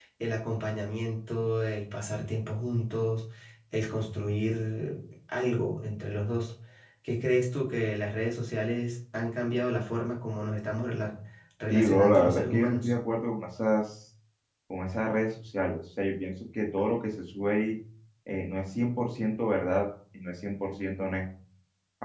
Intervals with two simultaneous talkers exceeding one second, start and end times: 11.7-12.9

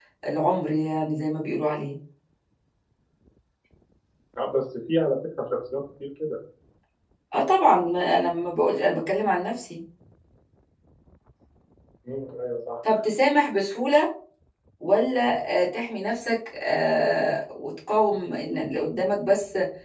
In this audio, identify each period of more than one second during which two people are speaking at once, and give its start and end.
none

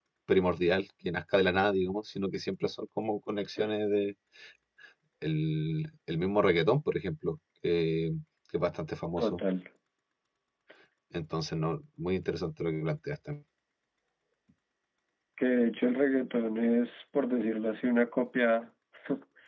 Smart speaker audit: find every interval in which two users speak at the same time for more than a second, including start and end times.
none

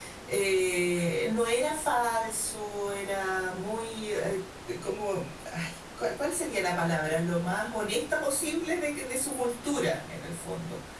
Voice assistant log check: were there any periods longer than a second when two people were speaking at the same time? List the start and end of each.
none

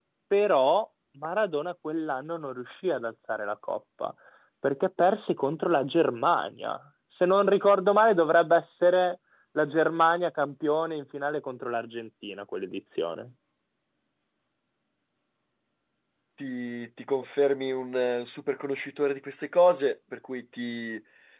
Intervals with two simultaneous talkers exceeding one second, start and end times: none

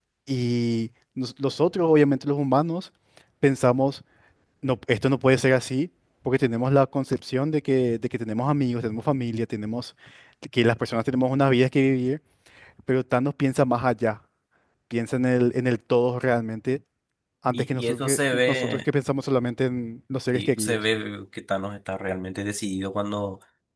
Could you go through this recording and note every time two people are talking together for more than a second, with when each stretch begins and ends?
17.5-18.8

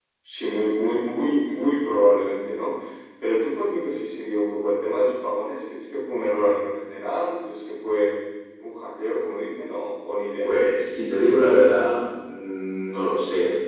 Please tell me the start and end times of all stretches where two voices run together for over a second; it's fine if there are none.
none

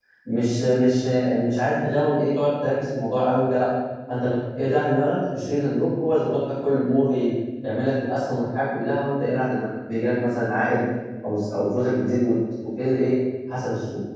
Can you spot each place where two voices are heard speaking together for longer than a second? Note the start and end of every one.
none

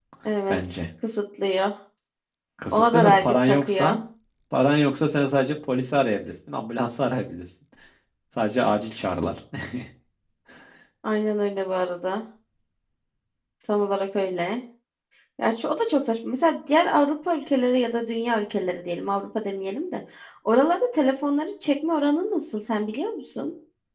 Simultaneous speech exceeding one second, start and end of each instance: 2.7-4.0

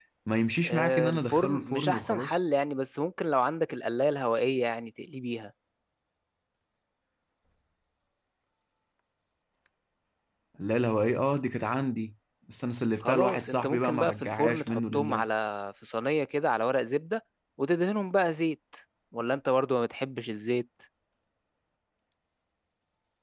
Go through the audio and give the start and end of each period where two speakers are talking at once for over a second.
0.6-2.5, 13.0-15.2

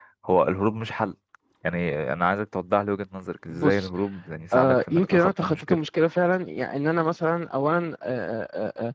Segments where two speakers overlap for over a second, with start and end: 4.5-5.8

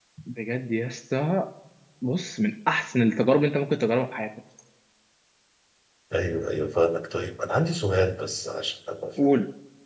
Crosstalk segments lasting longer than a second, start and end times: none

